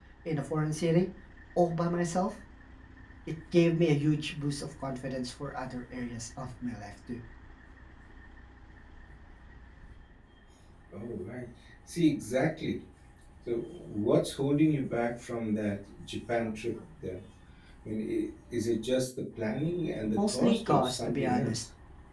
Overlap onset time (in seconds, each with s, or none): 20.2 s